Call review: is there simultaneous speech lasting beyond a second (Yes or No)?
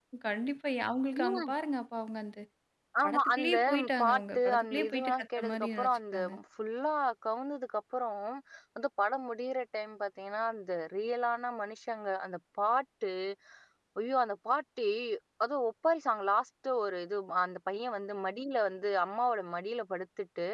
Yes